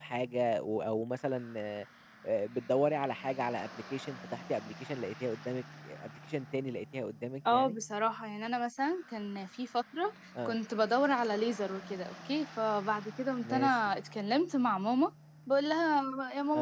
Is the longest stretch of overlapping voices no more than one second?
Yes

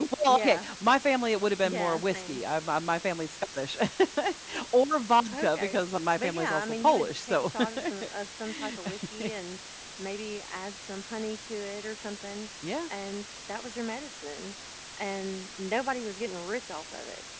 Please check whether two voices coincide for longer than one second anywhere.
Yes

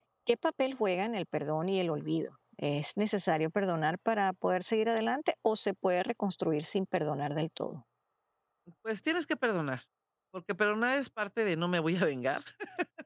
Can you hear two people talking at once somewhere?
No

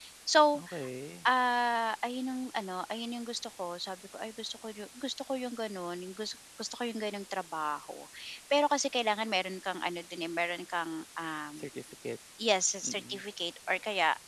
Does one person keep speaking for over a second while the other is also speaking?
No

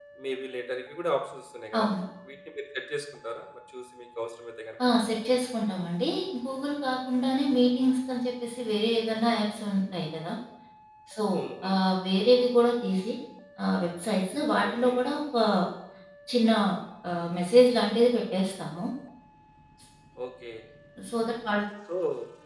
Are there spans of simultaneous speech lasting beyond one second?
No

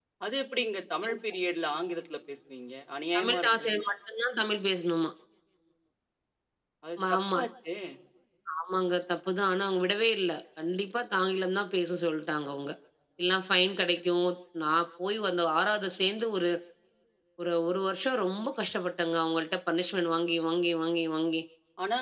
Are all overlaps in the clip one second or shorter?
Yes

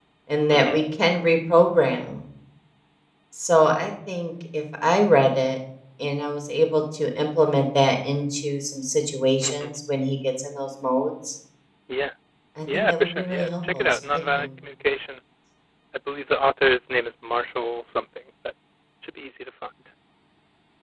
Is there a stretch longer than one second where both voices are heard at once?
Yes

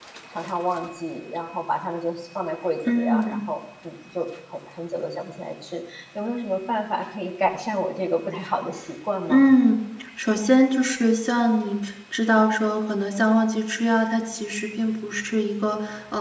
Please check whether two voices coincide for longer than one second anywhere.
No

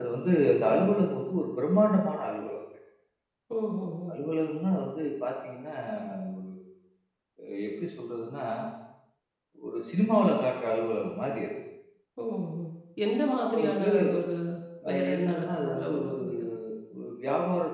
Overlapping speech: Yes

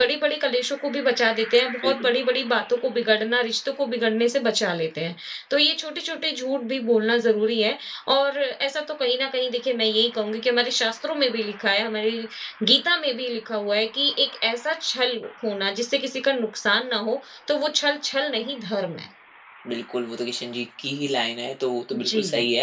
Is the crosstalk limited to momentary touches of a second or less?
Yes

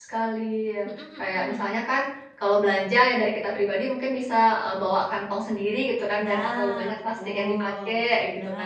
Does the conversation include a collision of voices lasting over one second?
Yes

